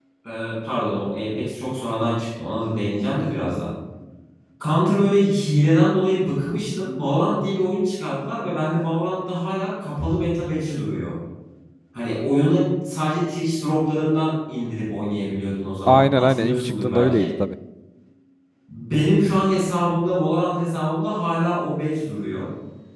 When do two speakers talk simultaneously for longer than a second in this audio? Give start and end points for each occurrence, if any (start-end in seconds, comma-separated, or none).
15.9-17.3